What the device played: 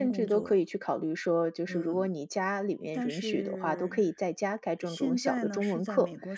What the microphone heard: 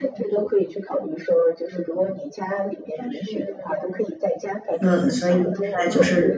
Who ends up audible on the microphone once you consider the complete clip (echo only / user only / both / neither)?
both